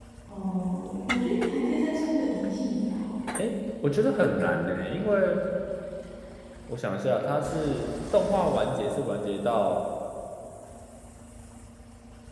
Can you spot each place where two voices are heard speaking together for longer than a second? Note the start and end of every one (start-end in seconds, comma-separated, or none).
none